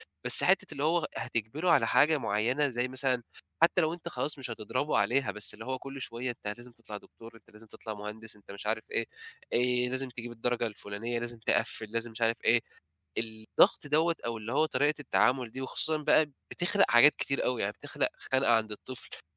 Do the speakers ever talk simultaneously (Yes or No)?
No